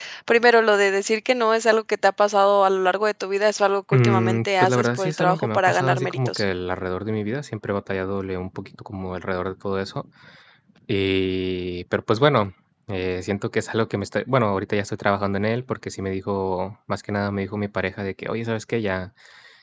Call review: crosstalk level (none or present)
present